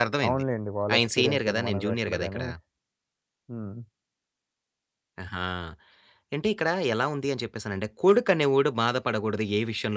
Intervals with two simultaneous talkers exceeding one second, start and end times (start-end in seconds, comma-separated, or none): 1.0-2.4